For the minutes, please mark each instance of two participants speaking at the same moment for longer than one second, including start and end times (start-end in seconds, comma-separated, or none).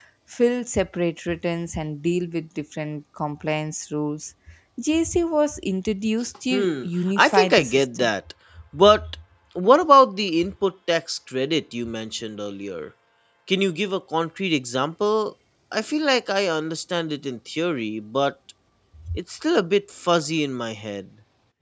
6.5-8.1